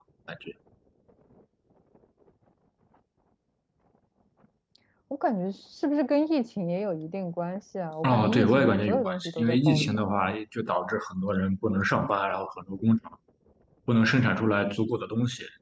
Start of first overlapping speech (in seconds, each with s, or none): 8.0 s